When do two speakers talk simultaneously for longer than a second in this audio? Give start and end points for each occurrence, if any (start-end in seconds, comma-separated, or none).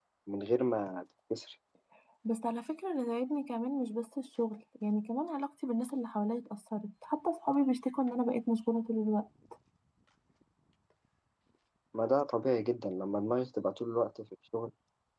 none